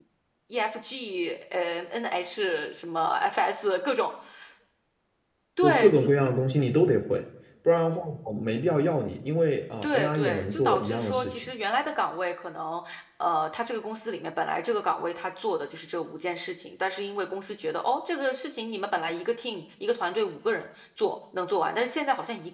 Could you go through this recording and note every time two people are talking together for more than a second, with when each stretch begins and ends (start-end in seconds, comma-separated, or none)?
9.8-11.5